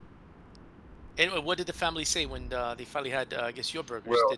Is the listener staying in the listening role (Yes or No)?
No